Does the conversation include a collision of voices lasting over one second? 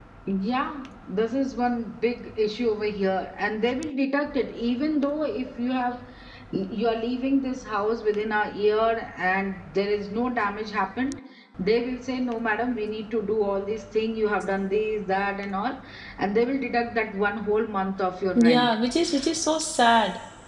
No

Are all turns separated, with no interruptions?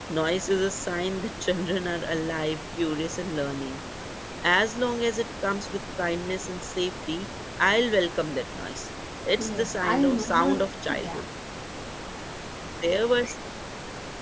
No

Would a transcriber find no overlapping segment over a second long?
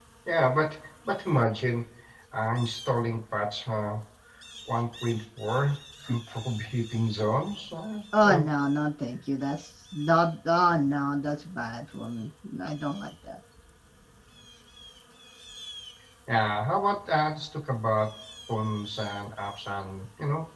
Yes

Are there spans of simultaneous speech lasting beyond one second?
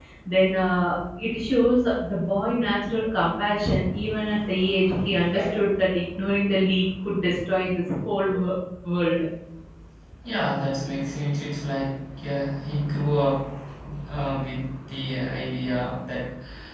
No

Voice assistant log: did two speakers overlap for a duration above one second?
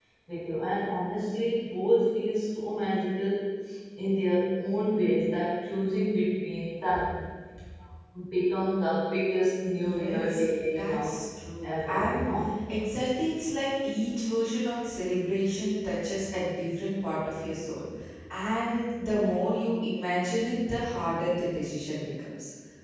Yes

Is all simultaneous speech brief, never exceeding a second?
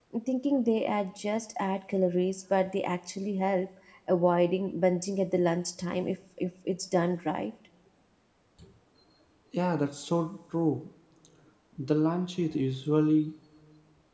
Yes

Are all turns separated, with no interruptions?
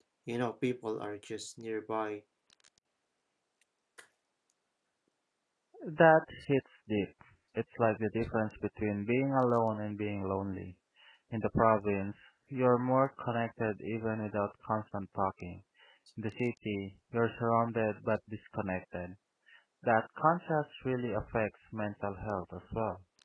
Yes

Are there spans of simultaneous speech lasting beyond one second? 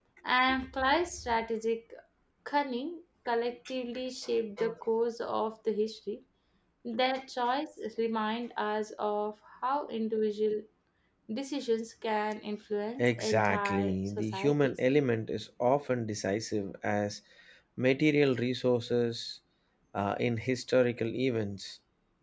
Yes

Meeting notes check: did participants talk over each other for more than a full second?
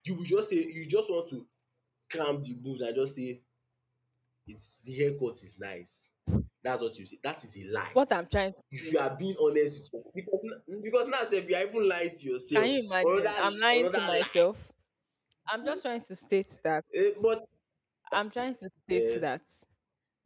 Yes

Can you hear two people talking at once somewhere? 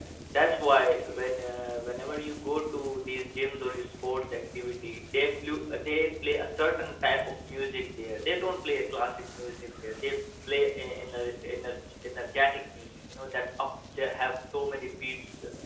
No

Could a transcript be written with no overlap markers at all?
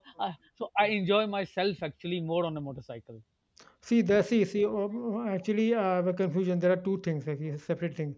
Yes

